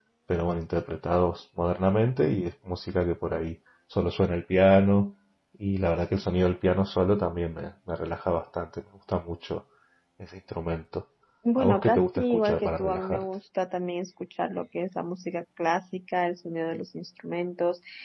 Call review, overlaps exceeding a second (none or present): present